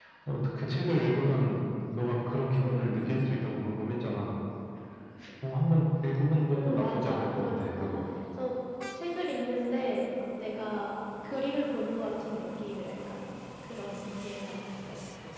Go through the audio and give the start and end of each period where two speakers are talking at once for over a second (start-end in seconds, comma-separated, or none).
6.5-7.9